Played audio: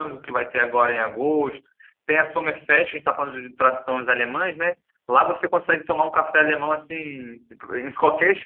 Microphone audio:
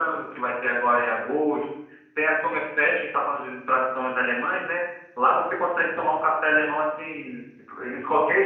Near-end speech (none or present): none